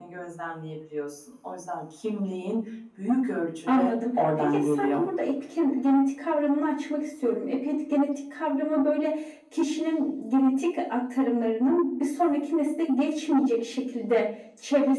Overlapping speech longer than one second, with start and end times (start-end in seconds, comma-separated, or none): 3.7-5.0